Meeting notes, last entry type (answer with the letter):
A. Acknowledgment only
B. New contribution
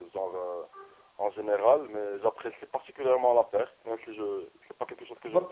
B